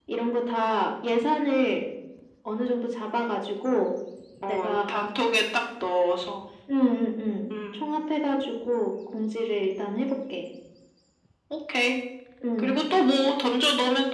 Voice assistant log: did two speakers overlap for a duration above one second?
No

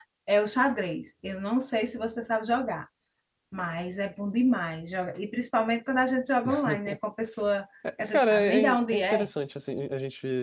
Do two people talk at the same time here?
Yes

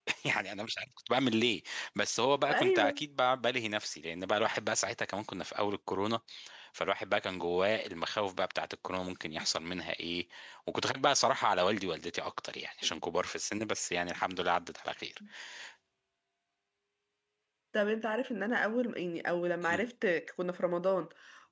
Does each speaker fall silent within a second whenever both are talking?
Yes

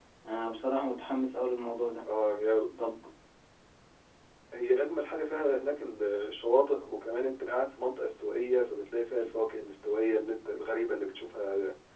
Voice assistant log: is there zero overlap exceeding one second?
Yes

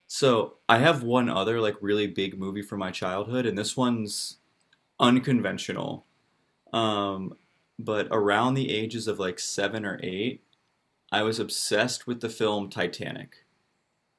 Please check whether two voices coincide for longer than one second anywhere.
No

